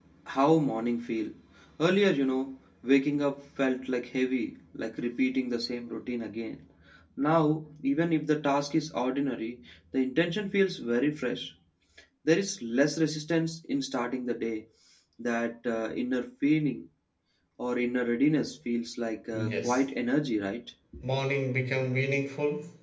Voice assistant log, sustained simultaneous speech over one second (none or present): none